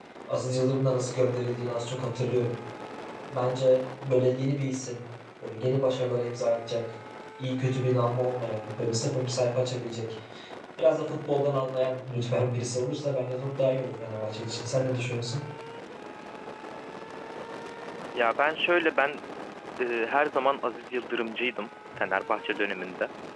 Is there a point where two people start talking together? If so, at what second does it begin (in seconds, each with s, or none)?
none